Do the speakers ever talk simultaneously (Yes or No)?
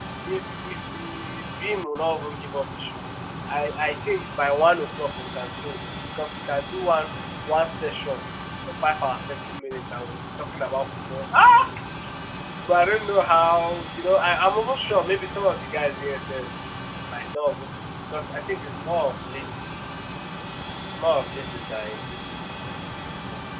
No